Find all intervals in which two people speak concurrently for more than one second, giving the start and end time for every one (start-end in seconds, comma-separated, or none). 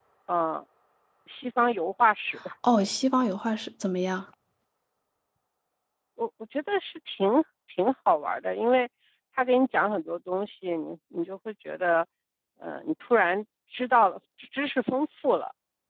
none